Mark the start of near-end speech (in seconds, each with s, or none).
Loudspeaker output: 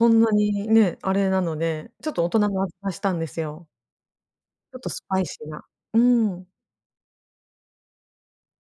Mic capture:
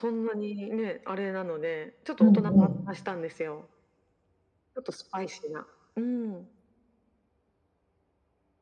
2.2 s